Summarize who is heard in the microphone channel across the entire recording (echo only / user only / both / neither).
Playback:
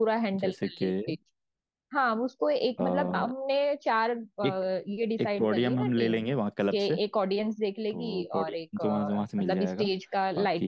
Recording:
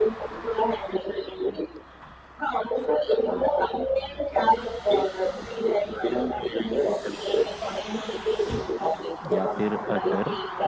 both